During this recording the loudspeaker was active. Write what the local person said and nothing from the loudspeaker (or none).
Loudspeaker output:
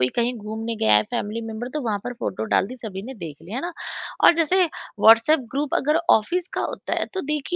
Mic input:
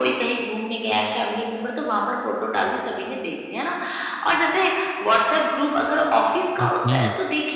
ओके।